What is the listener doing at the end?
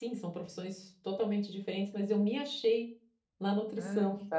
taking over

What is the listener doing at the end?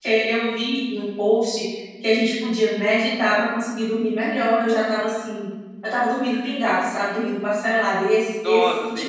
taking over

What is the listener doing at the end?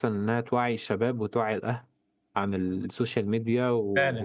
taking over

